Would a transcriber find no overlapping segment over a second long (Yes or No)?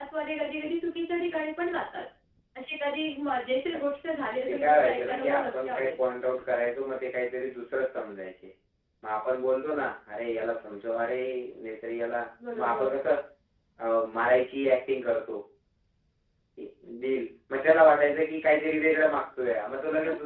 No